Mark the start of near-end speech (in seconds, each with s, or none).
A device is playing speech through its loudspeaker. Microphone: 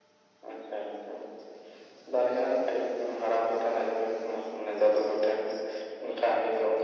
none